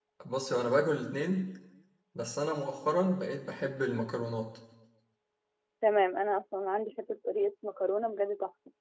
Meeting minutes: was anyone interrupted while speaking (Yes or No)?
No